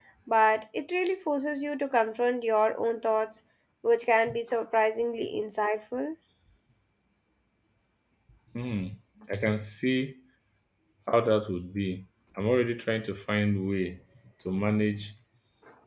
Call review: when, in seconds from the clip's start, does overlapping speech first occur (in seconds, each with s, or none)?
none